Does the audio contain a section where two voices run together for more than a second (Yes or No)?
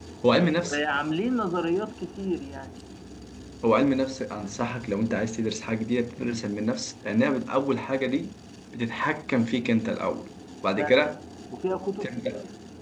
No